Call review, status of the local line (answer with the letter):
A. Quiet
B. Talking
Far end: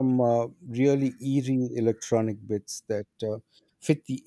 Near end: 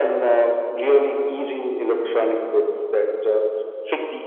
A